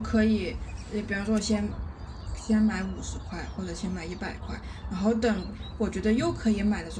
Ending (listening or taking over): listening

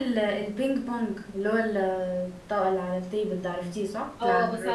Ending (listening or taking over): taking over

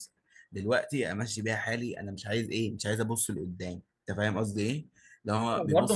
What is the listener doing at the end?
taking over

